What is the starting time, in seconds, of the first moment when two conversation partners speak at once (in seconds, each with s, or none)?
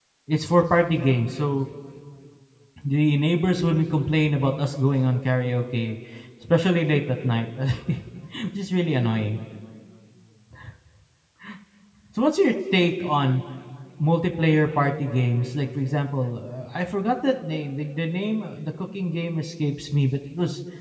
none